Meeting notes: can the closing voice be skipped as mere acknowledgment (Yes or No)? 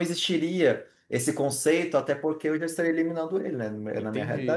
No